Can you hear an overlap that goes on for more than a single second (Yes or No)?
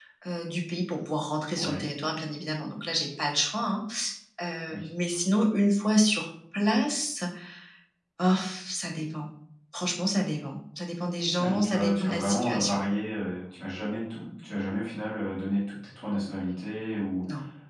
Yes